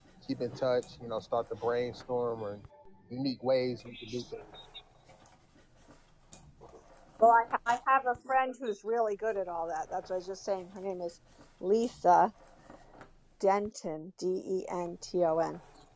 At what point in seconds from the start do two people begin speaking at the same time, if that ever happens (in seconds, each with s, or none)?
none